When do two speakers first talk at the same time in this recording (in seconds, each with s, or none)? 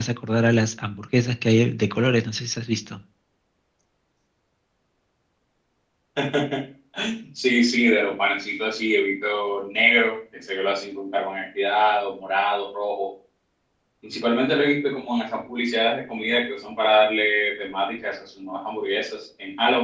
none